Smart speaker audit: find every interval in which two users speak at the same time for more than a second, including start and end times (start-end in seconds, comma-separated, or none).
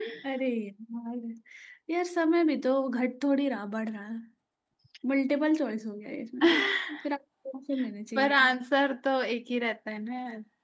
none